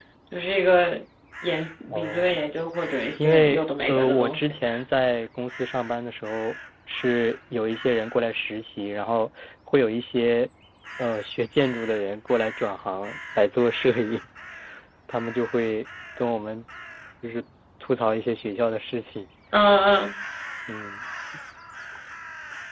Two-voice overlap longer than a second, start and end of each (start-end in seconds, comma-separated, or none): 3.2-4.5